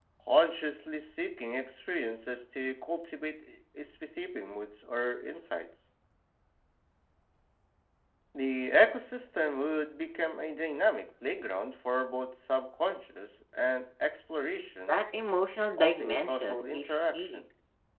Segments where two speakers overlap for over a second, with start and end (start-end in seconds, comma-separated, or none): 15.7-17.4